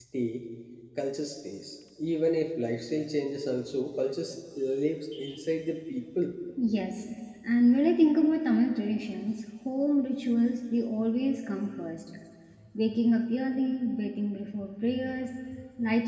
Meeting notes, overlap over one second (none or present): none